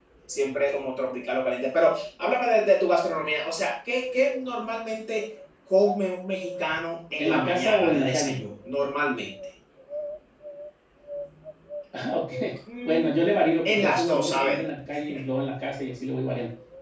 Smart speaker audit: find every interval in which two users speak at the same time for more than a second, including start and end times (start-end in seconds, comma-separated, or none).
7.2-8.4, 12.8-14.6